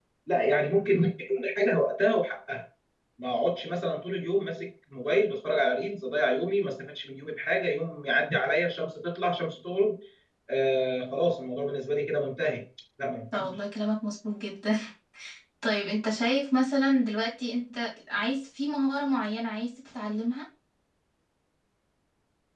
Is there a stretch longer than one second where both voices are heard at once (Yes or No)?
No